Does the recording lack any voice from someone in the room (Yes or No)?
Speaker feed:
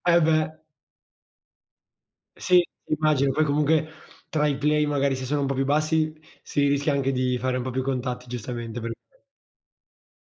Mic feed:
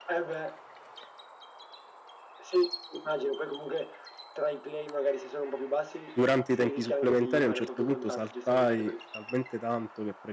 No